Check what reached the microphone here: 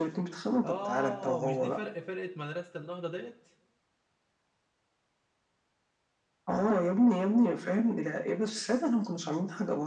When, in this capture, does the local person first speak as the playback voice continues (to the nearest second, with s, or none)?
1 s